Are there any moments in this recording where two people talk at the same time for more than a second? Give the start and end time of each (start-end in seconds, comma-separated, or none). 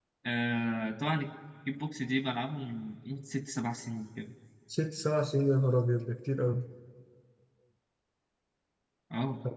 none